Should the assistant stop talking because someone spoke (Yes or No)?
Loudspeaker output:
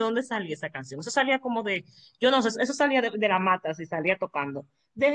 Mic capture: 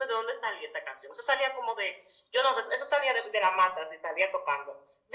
No